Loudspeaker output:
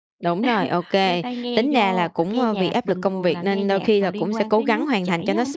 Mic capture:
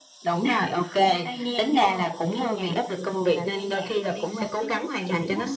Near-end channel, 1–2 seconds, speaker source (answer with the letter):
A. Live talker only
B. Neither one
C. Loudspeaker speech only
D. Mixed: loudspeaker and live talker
C